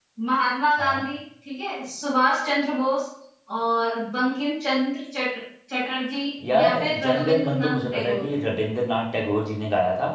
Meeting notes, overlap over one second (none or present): present